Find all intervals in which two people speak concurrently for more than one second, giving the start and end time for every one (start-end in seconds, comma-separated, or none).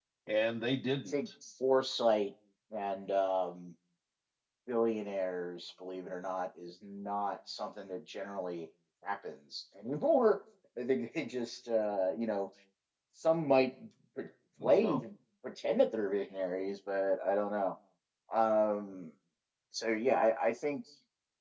none